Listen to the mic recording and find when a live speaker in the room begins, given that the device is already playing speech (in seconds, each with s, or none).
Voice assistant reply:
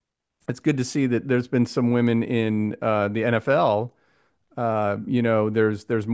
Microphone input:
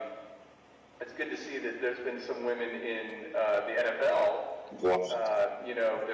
4.7 s